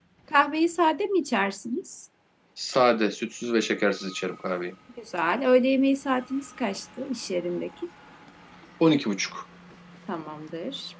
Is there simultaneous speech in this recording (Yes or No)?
No